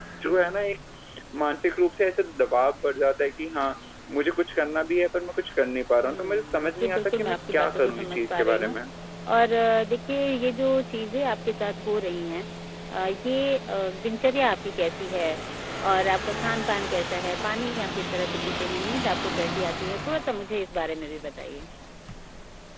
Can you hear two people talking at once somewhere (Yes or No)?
Yes